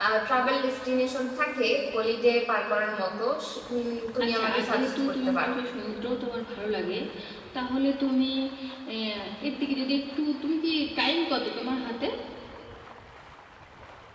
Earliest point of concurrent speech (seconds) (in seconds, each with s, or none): 4.2 s